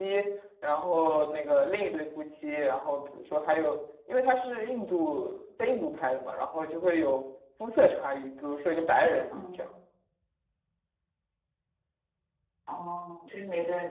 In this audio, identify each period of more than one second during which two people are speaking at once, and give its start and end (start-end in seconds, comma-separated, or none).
none